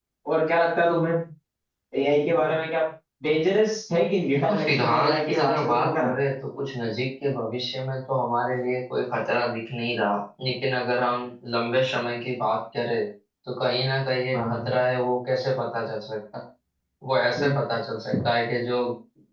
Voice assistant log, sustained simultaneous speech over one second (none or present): present